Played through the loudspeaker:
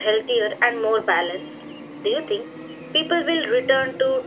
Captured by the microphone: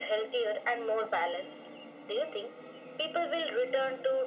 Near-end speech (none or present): none